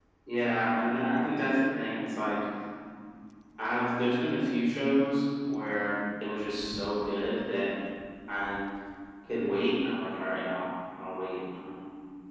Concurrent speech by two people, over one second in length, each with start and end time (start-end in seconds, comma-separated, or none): none